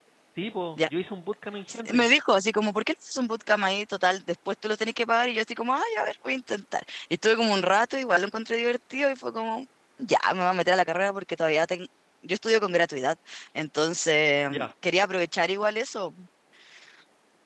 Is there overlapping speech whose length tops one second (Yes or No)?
No